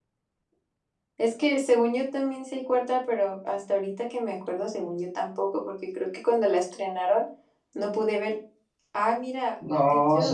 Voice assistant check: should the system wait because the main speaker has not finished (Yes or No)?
No